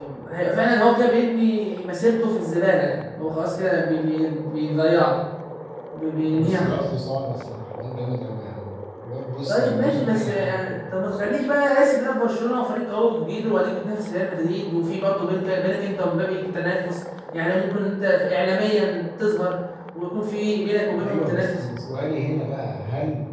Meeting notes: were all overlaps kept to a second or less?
No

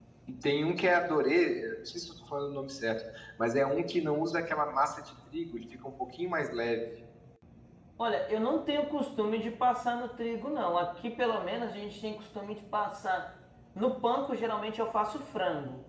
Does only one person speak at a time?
Yes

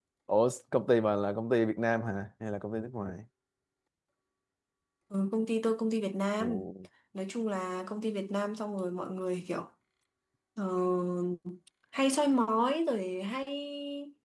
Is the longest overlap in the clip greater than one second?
No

